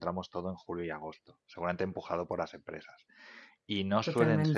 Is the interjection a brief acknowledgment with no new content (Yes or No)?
Yes